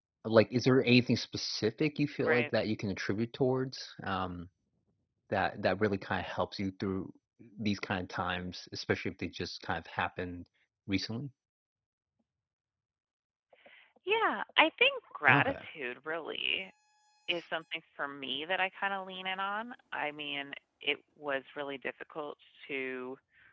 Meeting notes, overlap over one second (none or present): none